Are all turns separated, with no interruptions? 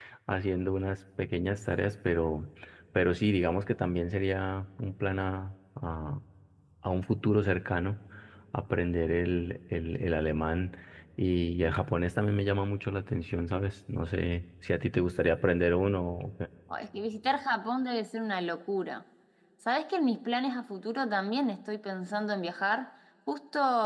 Yes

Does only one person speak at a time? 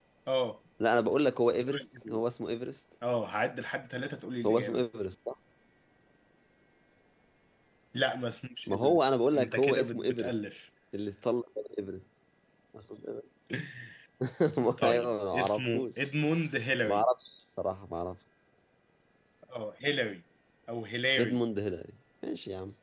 No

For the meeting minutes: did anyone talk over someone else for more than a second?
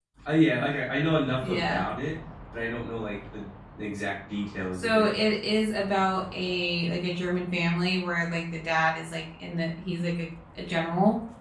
No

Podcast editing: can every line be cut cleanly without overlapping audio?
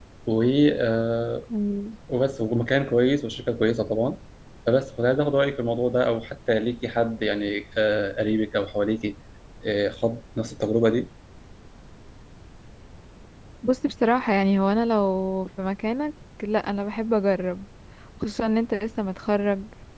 Yes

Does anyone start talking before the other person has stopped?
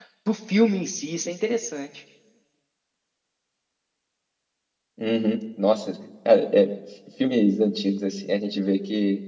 No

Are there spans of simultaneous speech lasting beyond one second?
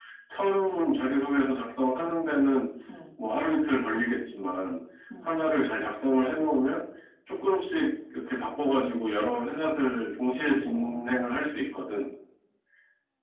Yes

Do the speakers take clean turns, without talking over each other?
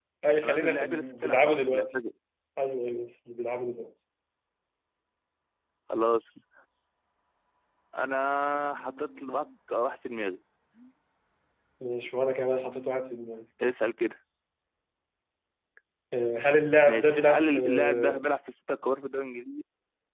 No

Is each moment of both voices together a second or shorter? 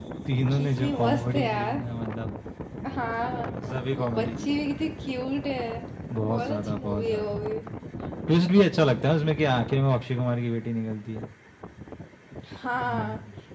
No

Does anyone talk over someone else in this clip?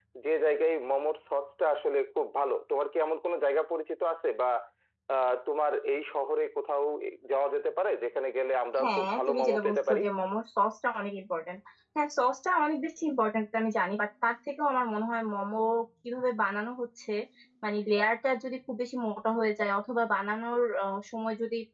Yes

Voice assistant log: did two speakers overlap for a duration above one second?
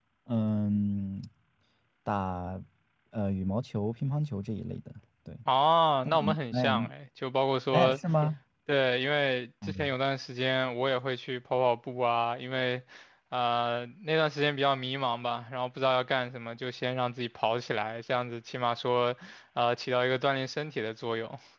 No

